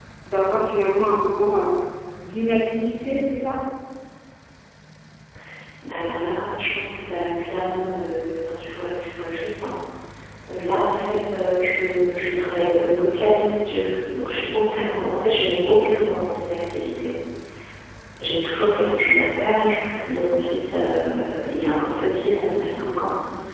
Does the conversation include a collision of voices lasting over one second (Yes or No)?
No